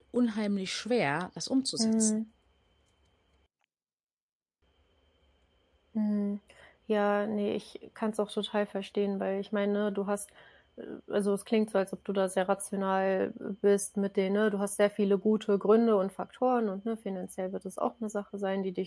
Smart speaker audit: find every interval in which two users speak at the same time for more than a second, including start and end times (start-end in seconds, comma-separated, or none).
none